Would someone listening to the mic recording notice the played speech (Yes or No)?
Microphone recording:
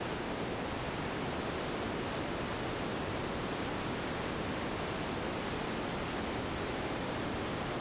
No